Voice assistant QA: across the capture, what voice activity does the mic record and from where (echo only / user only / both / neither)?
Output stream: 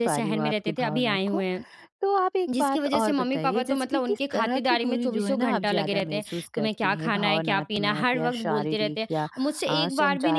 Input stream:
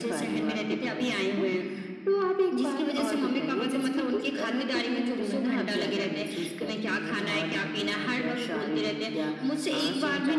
echo only